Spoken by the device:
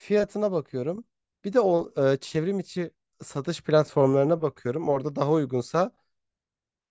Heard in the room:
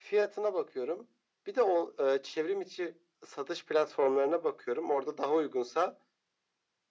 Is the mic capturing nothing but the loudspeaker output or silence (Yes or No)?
Yes